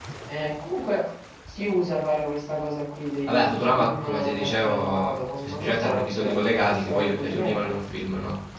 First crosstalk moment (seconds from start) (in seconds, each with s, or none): 3.3 s